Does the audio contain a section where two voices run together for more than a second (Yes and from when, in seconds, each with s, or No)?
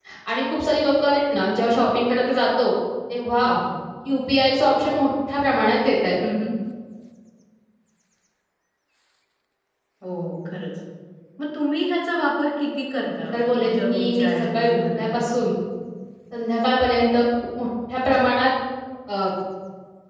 Yes, from 13.3 s